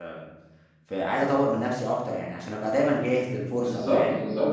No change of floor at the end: No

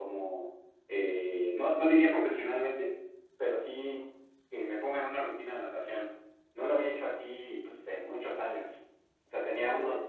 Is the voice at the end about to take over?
No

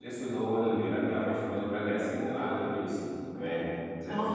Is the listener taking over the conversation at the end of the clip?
Yes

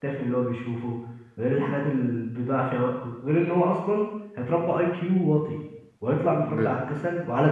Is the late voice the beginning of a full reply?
No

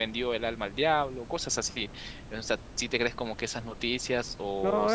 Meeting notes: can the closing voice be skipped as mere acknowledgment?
No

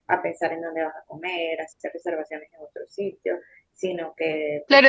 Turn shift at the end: Yes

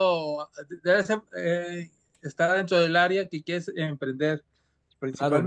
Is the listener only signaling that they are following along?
No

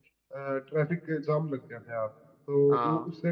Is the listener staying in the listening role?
Yes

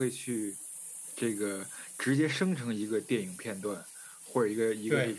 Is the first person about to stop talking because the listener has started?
No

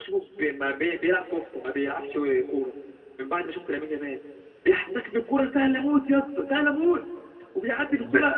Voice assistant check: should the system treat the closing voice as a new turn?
No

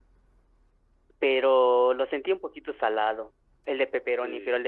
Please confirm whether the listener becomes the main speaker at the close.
Yes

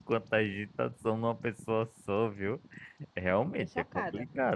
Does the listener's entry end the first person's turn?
No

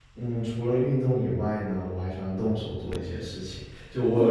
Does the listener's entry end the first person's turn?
No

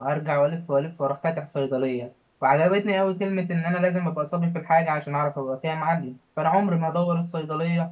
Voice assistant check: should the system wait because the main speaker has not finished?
Yes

